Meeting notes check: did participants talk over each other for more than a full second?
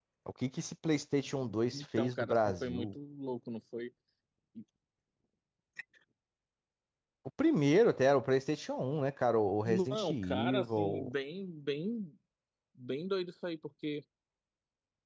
Yes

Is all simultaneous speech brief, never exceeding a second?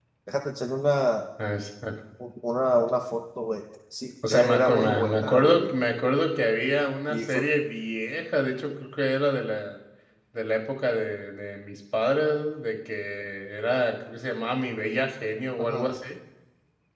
No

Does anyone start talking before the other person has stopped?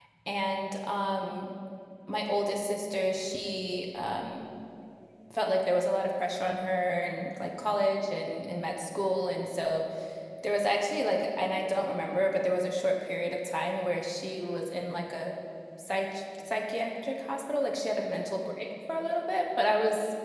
No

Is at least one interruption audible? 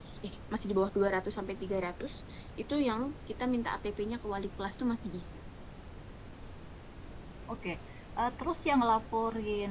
No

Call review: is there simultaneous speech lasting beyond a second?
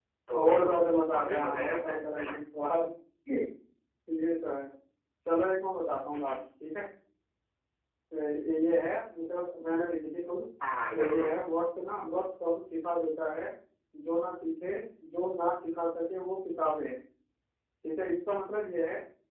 Yes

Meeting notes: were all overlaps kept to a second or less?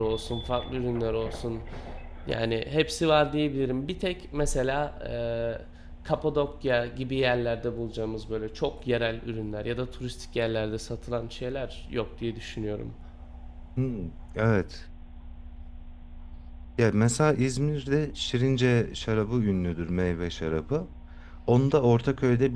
Yes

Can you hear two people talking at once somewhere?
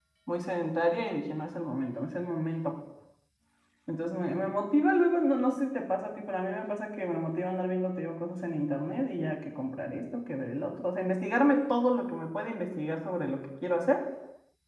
No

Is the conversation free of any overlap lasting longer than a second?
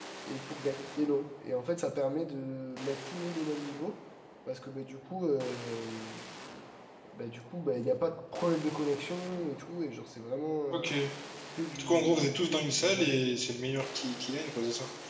No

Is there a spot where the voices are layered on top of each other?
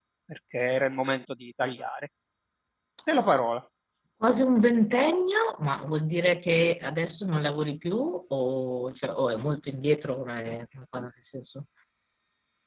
No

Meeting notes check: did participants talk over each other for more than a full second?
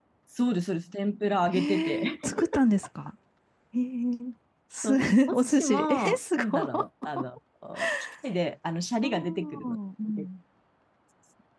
Yes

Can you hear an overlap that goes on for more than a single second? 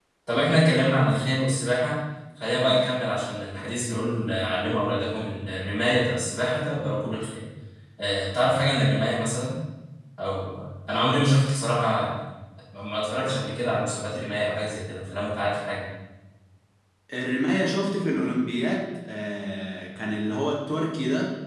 No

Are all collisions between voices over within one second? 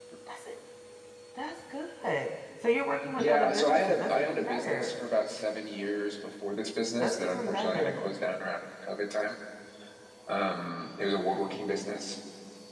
No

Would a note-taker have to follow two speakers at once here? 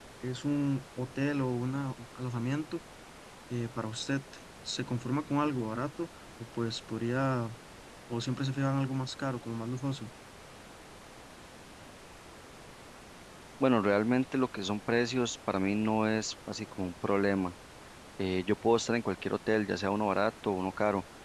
No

